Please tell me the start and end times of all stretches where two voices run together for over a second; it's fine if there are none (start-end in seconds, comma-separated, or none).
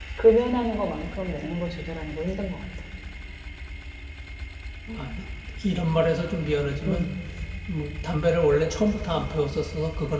none